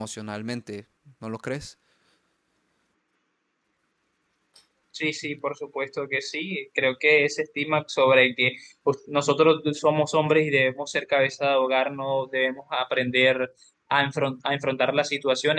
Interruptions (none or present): none